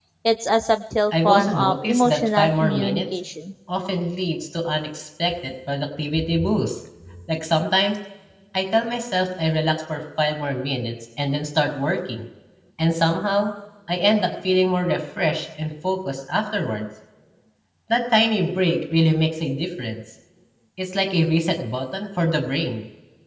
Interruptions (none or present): present